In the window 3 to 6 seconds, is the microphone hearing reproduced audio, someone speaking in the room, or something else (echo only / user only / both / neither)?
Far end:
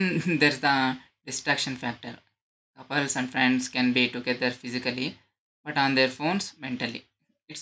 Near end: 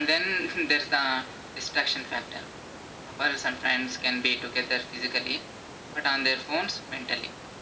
echo only